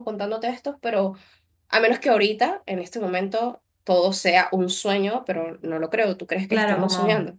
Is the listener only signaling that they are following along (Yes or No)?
No